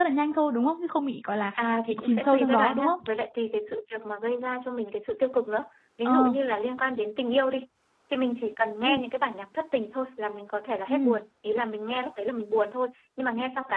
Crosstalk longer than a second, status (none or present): present